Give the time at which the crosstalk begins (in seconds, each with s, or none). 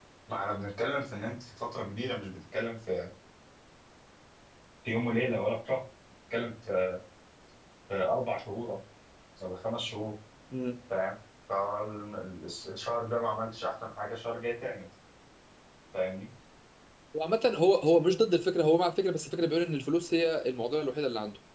none